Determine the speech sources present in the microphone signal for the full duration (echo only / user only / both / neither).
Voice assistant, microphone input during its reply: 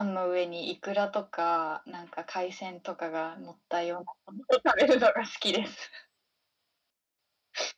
echo only